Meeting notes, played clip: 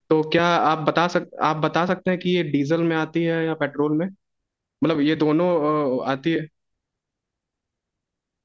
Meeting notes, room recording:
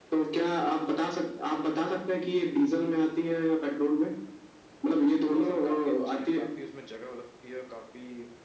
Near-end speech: present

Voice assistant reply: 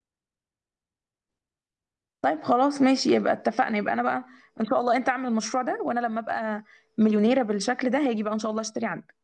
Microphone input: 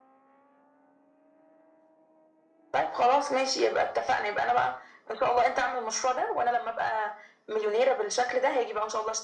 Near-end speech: none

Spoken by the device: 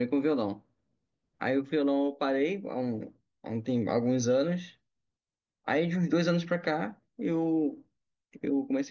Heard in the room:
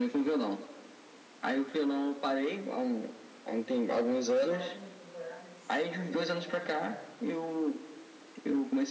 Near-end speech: present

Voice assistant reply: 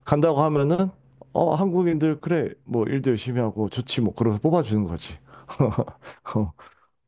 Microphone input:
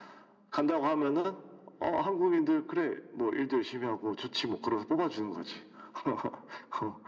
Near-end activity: none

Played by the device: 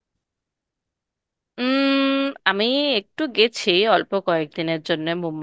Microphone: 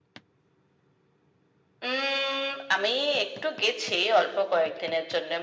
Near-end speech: none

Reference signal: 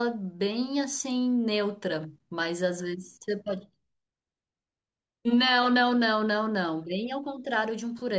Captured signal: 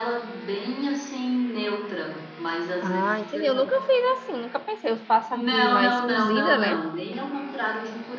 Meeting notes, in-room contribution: present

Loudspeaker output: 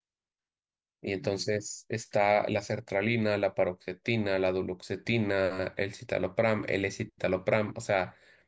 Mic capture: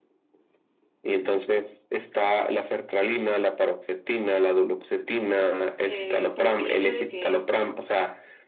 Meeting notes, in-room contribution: present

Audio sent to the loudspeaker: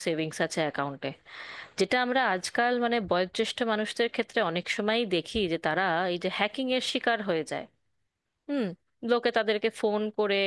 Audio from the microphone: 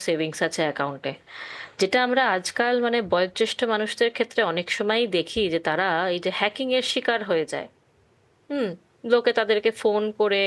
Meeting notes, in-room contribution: none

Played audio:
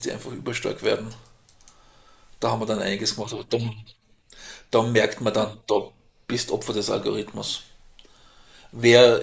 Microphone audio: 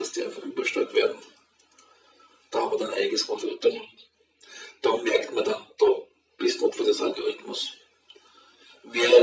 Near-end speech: none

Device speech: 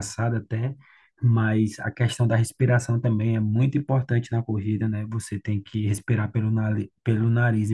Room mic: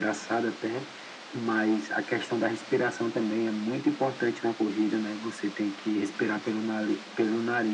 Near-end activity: none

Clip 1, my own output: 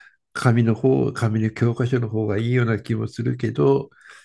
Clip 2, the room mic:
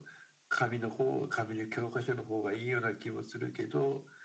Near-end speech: none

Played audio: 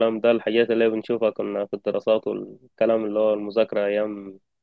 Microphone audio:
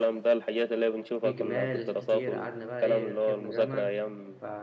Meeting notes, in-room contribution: present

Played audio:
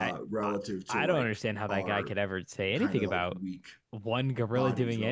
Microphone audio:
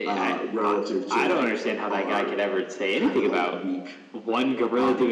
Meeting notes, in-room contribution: none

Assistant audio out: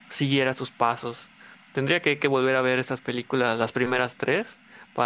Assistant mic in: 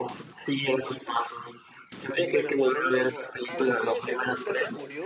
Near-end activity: present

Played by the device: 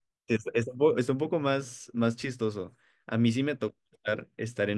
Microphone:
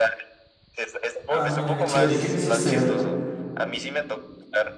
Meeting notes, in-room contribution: present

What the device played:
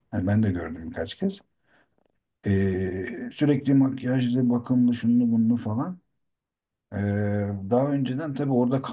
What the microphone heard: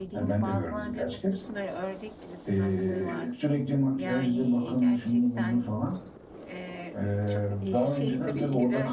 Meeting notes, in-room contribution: present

